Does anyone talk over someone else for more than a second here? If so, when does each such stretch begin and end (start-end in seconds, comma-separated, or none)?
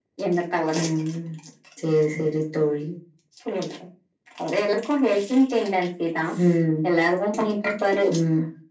none